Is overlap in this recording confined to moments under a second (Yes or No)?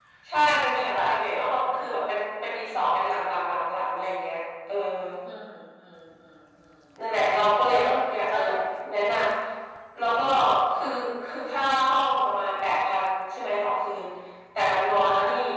Yes